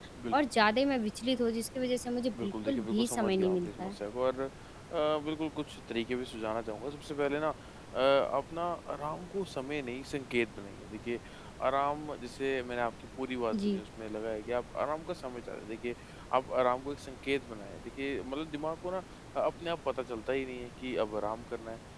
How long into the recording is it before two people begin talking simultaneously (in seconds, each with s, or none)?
2.4 s